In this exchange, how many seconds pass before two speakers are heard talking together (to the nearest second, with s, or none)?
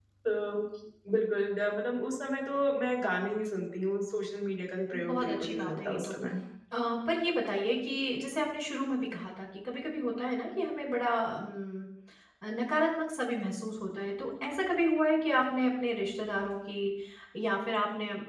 5 s